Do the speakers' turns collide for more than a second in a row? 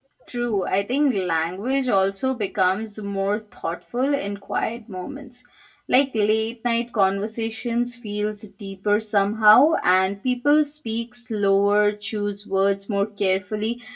No

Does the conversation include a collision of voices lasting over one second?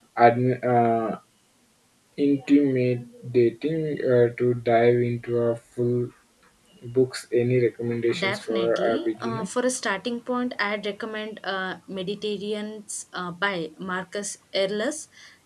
Yes, from 8.1 s

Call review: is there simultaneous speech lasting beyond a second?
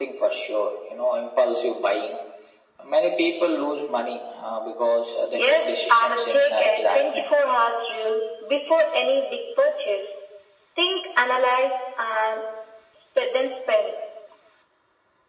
Yes, from 5.3 s

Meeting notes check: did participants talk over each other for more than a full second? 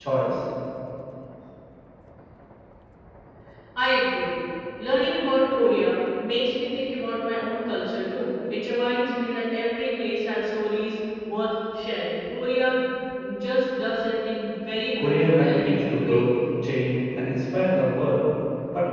Yes, from 15.0 s

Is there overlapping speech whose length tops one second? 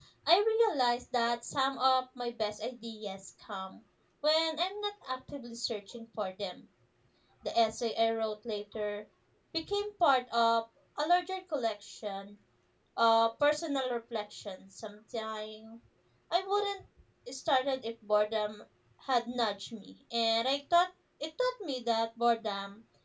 No

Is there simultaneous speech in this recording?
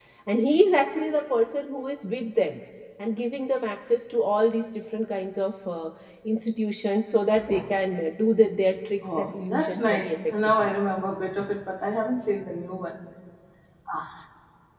Yes, from 9.0 s

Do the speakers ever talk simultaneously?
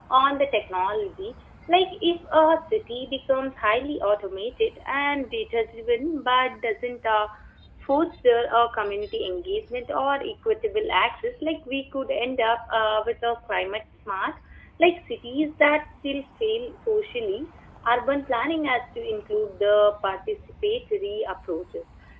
No

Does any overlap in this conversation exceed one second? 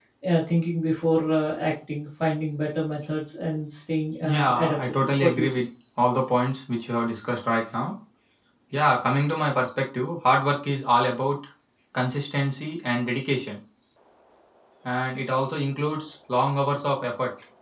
Yes, from 4.2 s

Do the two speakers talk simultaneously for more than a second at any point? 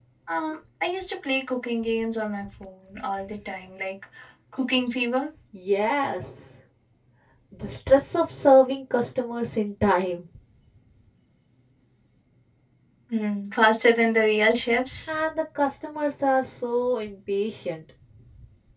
No

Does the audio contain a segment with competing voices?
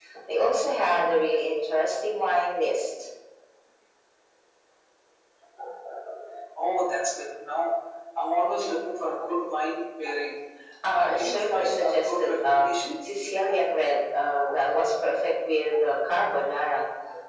Yes, from 10.8 s

